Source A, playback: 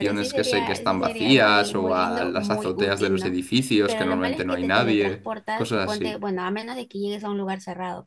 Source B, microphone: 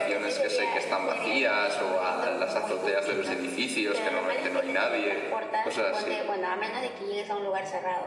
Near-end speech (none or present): present